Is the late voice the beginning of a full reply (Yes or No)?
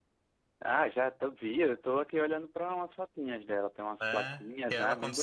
Yes